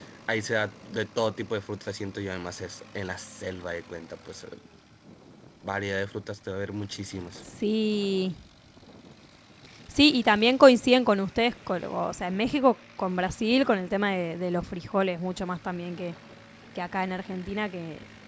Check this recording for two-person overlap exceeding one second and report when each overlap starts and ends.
none

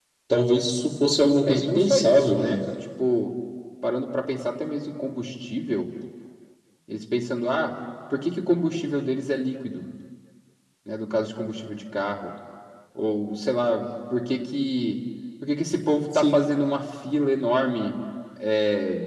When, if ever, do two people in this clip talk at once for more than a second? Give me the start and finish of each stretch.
1.5-2.7

